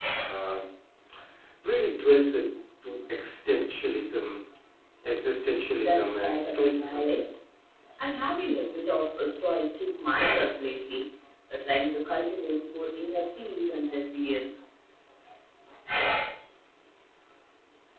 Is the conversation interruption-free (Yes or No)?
No